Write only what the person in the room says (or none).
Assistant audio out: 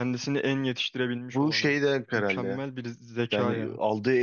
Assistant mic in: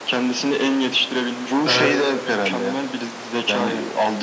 evet